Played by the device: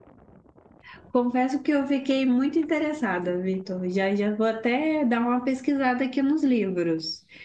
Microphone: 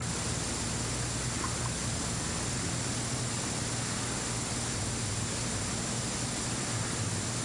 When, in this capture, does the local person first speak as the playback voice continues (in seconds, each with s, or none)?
none